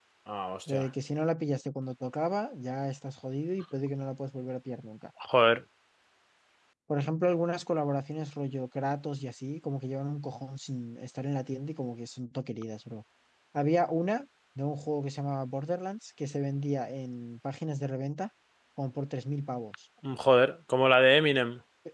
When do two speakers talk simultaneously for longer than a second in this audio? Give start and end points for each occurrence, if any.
none

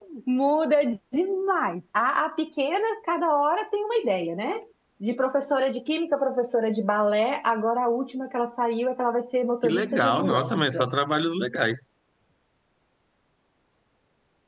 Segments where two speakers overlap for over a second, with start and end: 9.6-10.9

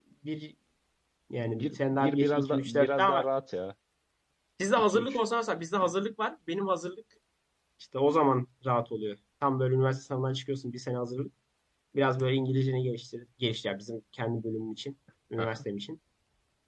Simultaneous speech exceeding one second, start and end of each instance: 1.5-3.3

